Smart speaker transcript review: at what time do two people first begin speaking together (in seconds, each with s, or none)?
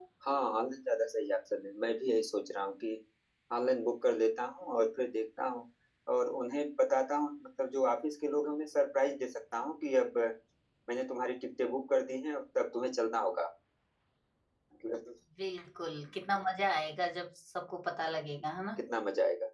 none